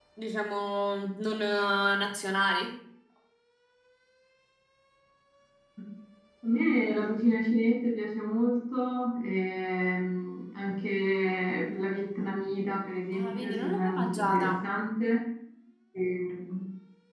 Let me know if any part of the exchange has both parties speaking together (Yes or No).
Yes